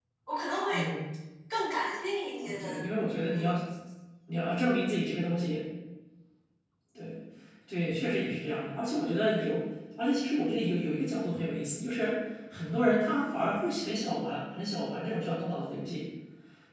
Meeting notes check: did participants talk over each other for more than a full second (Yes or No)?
No